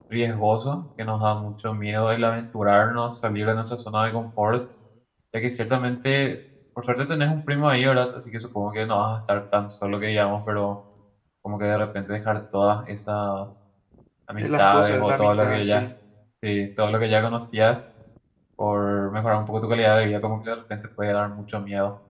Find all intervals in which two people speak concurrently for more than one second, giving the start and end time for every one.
14.4-15.8

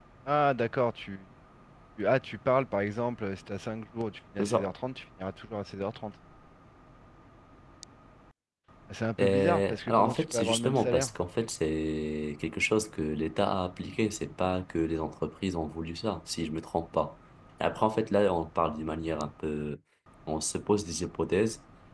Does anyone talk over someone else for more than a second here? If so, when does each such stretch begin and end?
9.2-11.1

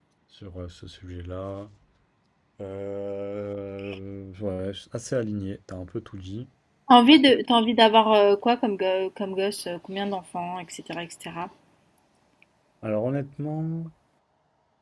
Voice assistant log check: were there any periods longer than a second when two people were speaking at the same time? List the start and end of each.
none

